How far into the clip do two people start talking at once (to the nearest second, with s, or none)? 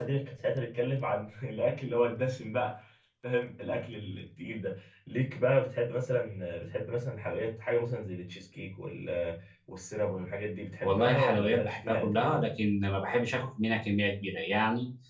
11 s